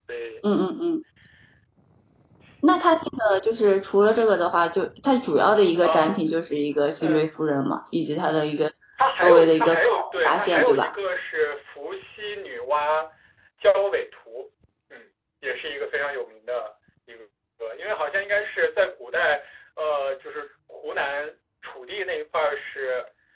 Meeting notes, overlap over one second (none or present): present